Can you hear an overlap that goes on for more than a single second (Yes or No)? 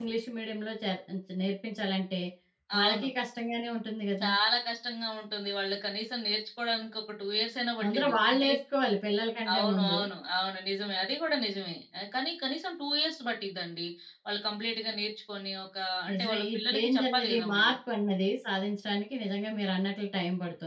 Yes